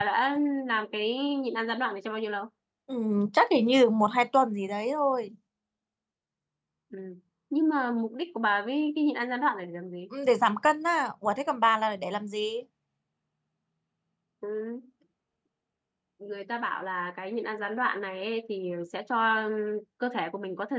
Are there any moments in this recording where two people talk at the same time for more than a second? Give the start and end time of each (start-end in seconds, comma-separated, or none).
none